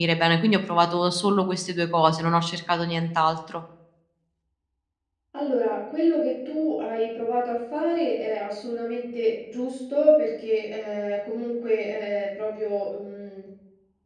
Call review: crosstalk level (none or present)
none